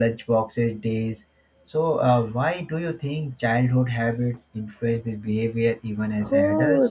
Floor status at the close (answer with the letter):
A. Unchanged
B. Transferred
B